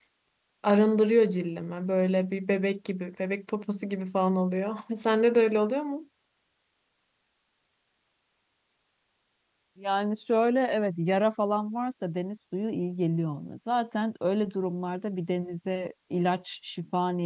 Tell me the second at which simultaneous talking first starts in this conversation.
none

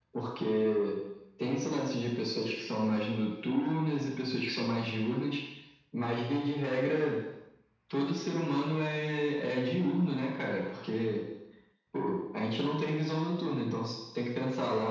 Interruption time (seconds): none

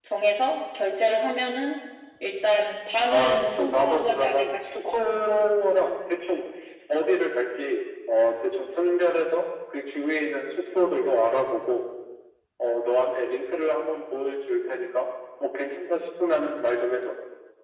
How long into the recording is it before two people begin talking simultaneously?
3 s

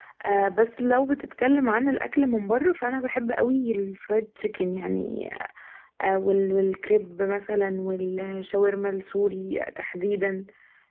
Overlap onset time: none

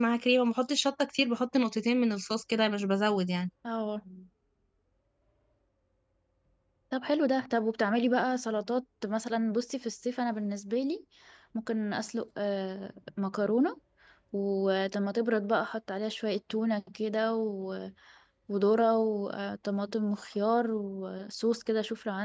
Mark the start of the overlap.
none

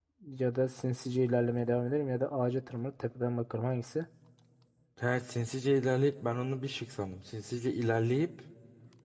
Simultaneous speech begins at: none

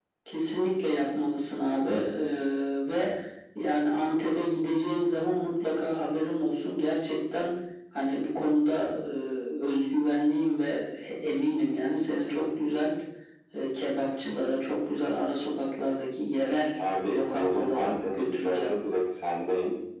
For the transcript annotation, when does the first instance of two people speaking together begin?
17 s

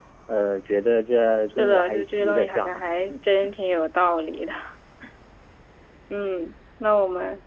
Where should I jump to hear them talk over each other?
2 s

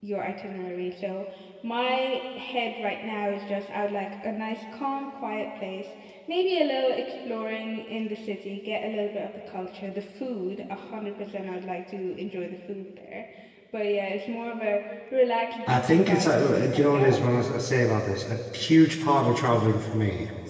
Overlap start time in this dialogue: 16 s

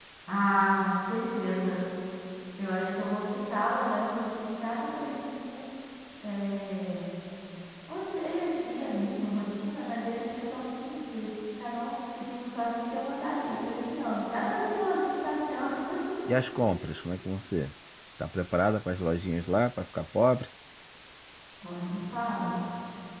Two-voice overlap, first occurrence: none

